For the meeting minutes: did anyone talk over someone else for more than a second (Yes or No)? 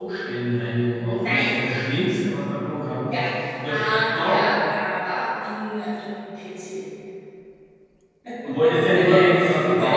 Yes